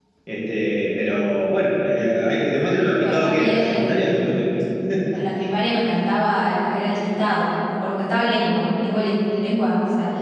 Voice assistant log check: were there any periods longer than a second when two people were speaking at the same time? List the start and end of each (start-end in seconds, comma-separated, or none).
3.0-4.4